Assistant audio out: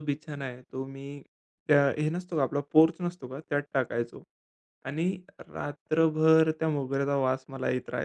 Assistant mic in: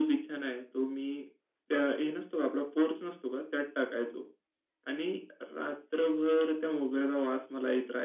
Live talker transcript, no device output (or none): none